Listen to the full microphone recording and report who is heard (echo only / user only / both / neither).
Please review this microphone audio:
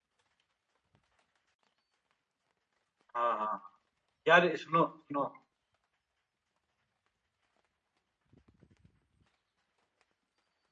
user only